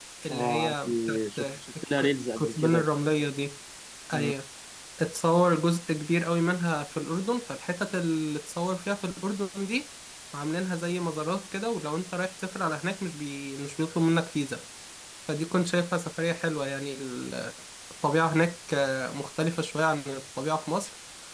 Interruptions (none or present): present